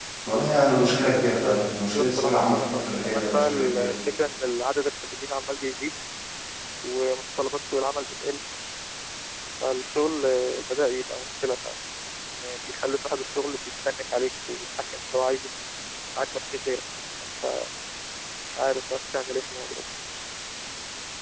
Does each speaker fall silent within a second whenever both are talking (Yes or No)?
No